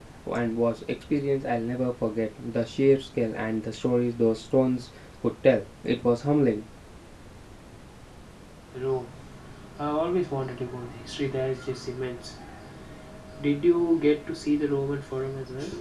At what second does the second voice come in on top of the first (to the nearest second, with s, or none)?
none